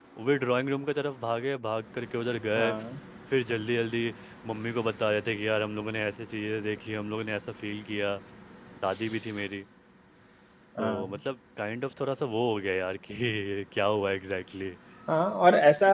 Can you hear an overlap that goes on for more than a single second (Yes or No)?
No